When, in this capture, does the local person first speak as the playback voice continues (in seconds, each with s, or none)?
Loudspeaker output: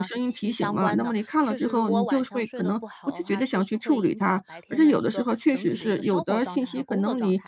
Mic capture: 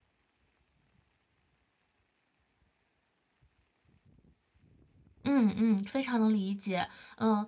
5.2 s